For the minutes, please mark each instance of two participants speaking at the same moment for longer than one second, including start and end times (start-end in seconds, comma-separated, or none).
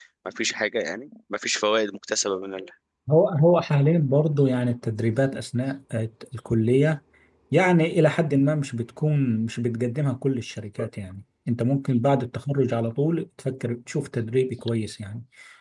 none